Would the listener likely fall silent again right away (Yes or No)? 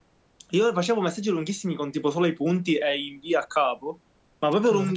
Yes